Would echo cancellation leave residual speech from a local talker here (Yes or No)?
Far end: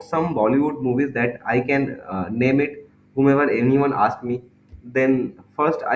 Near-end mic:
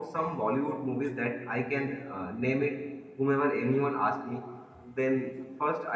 No